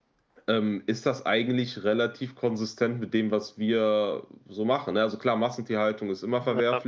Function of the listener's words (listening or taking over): listening